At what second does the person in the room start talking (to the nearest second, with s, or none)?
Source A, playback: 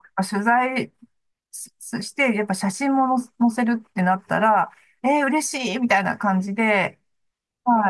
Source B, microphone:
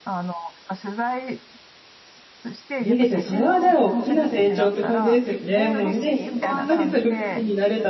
3 s